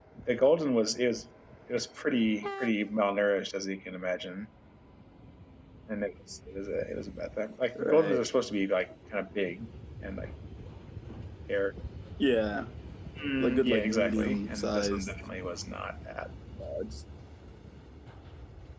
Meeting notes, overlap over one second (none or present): present